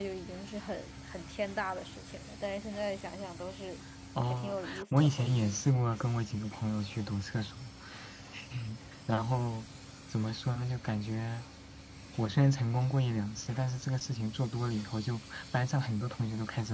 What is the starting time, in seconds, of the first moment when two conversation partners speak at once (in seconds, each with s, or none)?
4.3 s